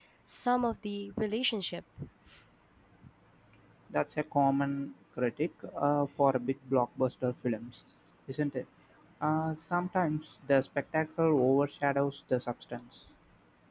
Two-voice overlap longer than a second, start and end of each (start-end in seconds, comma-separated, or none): none